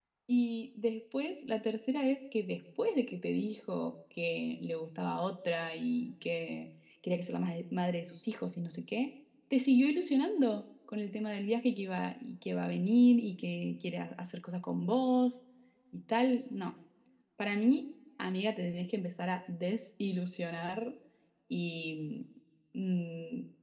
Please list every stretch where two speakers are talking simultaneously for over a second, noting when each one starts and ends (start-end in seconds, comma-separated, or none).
none